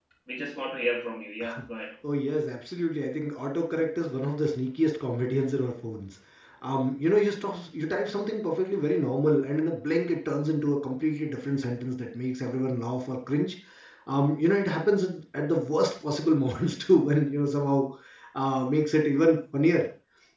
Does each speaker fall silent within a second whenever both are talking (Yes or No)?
Yes